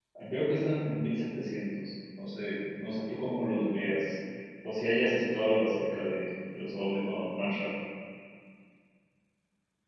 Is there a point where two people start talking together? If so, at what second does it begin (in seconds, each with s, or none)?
none